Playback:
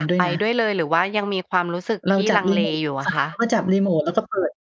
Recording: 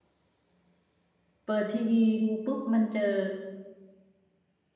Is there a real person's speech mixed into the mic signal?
Yes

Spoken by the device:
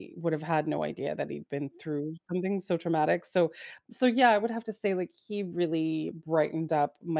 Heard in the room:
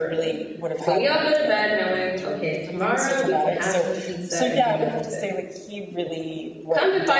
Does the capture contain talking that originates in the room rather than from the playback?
Yes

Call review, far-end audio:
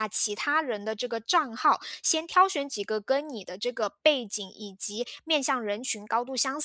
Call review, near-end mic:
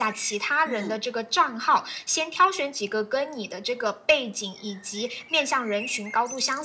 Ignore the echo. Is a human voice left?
Yes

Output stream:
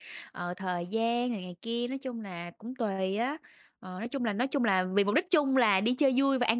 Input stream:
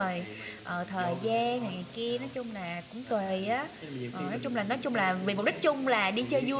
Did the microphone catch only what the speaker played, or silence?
No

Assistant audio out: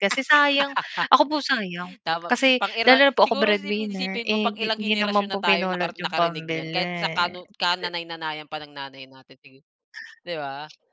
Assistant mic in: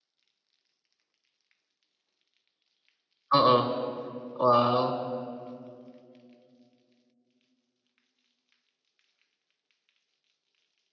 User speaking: Yes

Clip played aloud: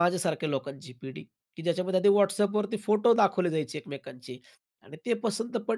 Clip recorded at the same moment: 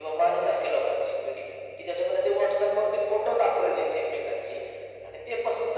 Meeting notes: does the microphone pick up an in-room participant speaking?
No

